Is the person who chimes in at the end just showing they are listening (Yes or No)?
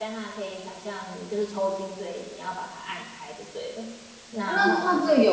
No